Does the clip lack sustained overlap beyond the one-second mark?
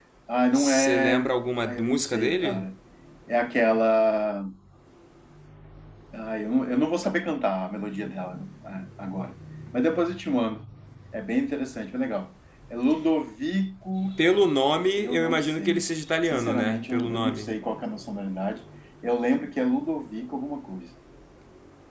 No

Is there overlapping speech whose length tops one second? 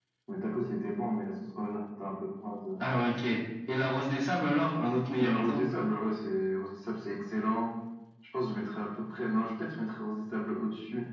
No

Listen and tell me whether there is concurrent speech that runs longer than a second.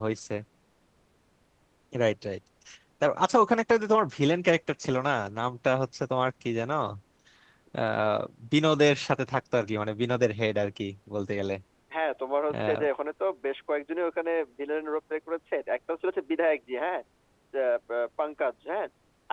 No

